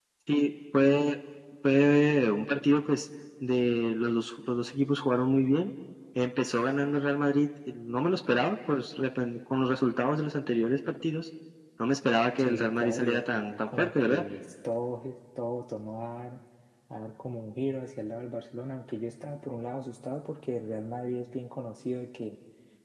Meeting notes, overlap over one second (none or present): present